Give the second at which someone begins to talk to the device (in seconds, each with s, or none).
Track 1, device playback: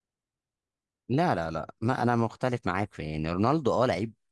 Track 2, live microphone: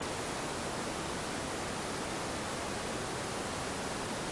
none